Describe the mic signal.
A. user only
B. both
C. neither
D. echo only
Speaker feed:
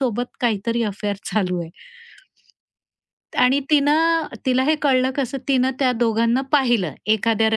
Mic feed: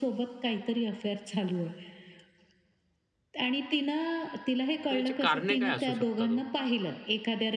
B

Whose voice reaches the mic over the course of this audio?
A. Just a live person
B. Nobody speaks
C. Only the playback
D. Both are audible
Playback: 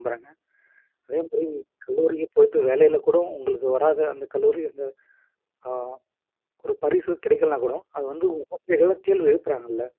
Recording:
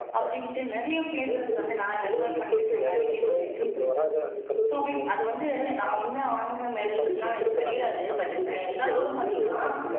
D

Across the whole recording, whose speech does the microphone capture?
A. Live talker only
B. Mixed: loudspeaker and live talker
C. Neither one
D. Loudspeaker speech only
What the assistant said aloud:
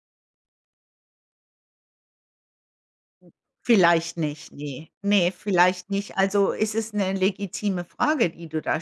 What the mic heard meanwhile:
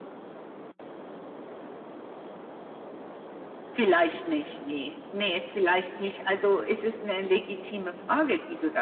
D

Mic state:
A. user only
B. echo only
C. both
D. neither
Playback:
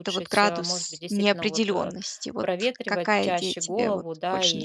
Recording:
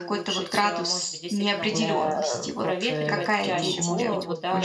C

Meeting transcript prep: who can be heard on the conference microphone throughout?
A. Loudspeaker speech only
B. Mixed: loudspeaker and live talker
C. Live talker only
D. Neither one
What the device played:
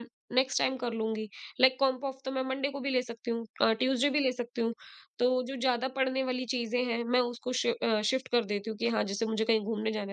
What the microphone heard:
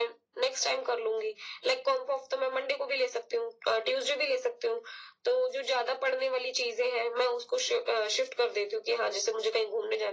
A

